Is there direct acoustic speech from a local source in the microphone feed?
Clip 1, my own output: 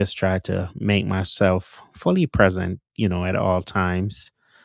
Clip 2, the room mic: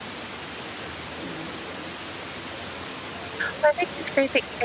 Yes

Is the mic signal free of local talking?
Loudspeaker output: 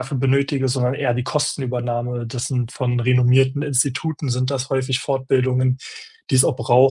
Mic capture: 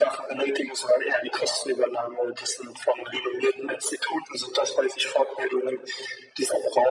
Yes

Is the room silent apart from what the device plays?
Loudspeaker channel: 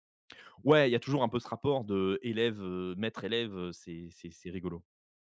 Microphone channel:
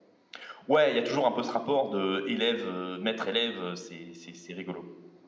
Yes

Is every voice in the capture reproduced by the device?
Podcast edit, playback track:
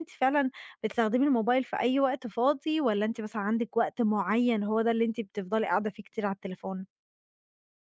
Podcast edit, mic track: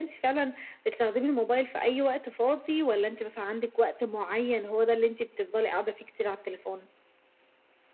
Yes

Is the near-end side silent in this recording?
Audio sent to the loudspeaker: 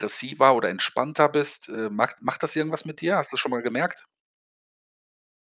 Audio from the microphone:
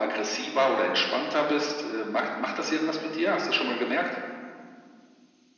Yes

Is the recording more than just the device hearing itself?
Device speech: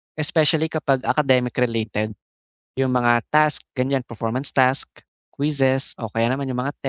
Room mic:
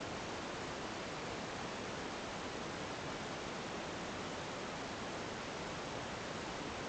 No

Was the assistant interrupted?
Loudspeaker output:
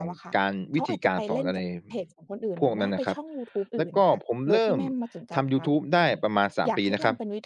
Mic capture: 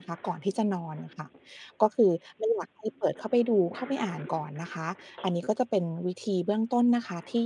Yes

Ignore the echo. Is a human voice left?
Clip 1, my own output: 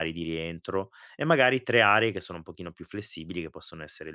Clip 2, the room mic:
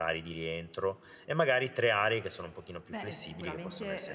Yes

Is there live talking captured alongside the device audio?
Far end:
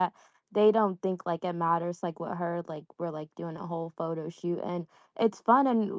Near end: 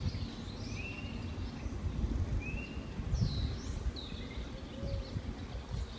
No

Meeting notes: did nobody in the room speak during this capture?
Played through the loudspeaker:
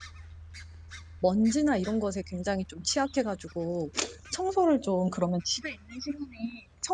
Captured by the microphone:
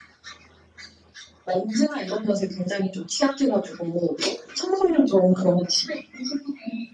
Yes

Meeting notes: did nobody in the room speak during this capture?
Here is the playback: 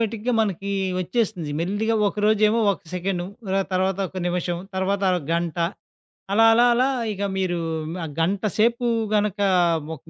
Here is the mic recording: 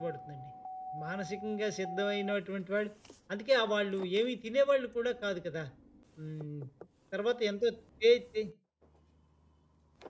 No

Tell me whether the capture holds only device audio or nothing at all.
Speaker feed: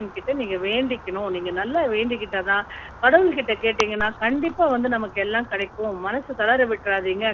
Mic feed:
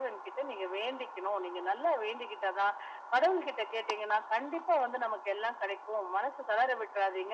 Yes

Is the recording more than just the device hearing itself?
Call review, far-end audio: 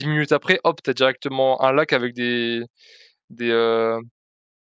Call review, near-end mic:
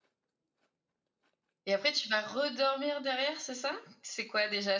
Yes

